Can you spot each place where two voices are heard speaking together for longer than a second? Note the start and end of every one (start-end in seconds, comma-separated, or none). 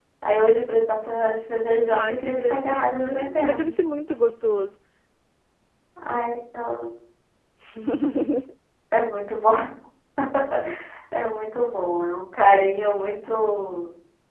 1.9-3.7